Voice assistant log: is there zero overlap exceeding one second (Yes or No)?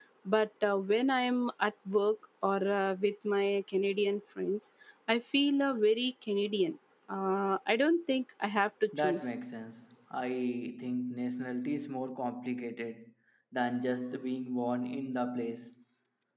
Yes